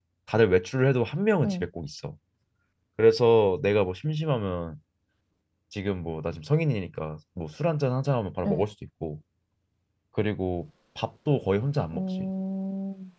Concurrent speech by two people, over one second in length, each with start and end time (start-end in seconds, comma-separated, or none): none